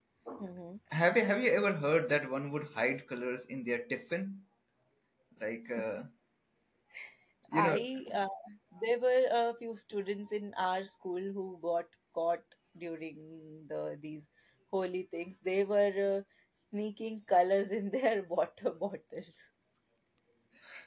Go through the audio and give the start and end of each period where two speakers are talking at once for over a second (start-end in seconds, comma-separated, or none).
none